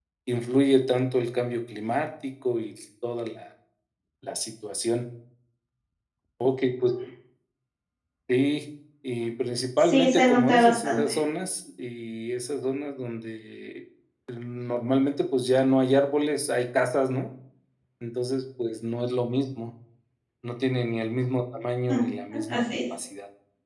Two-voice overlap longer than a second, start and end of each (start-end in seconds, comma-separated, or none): 9.8-11.2